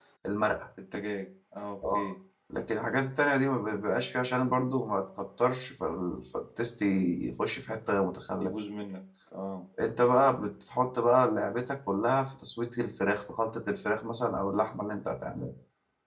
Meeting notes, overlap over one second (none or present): none